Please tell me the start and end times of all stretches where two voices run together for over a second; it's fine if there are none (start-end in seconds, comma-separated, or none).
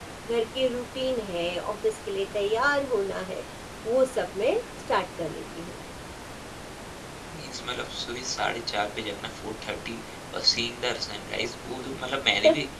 none